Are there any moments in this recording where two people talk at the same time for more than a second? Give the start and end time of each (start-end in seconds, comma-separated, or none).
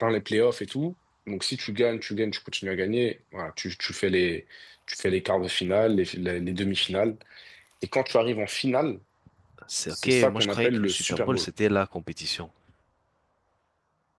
9.9-11.5